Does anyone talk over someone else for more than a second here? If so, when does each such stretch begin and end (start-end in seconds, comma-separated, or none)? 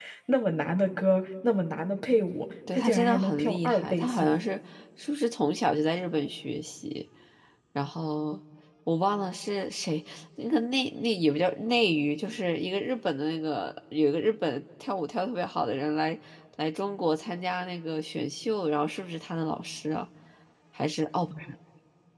2.7-4.4